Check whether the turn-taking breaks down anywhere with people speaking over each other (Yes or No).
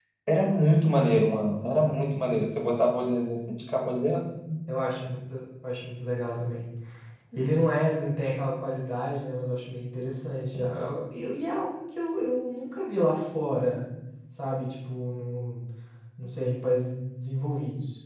No